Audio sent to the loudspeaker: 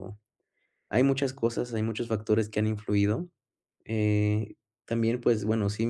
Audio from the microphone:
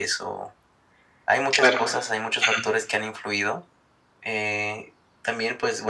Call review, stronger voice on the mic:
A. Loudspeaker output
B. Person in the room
B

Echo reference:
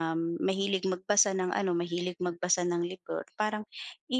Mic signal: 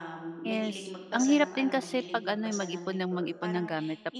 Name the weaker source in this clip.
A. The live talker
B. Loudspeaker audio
B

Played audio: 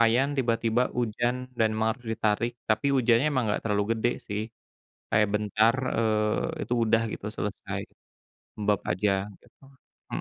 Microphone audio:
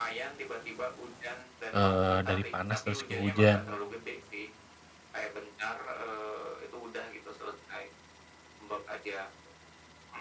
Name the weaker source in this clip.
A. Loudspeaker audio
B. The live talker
A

